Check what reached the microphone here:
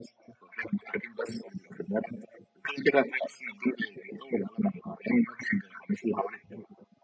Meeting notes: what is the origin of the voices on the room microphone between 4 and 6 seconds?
echo only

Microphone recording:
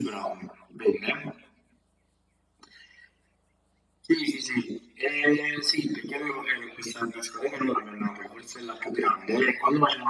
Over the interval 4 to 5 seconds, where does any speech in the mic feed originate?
echo only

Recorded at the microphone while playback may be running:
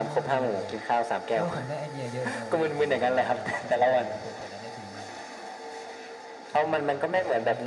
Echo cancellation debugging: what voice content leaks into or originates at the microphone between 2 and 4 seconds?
both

